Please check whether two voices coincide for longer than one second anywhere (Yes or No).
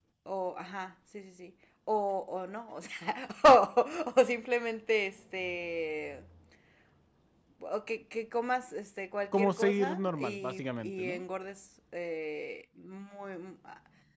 Yes